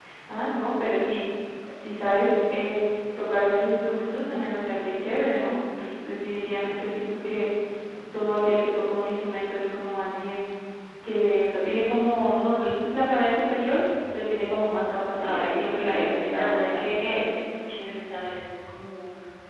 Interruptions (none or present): present